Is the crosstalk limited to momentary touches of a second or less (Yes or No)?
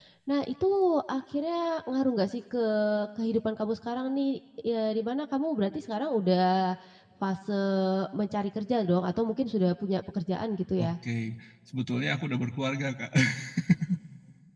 Yes